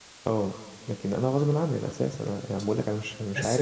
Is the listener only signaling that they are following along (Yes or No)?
No